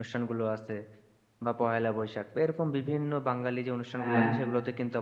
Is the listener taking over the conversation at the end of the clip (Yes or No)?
No